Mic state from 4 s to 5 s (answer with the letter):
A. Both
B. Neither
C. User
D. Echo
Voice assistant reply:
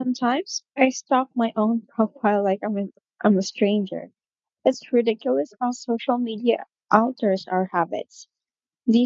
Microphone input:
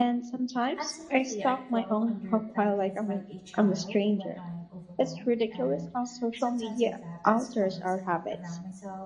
A